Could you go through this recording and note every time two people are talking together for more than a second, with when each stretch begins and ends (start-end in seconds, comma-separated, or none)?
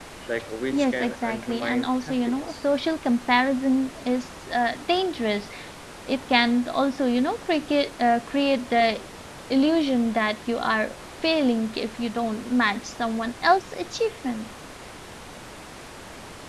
0.7-2.5